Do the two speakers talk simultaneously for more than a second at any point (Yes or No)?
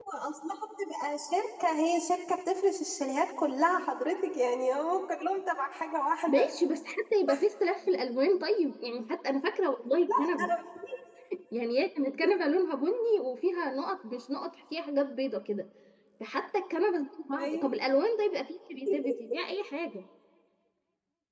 No